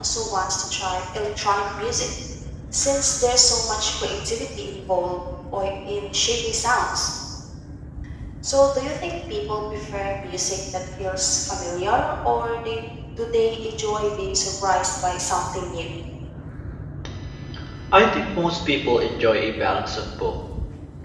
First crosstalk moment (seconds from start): none

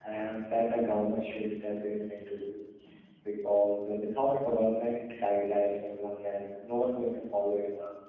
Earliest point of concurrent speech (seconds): none

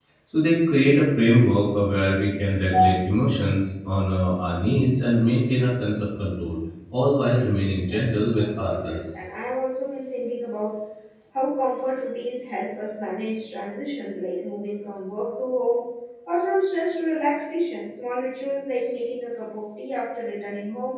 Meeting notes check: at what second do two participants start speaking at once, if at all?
7.2 s

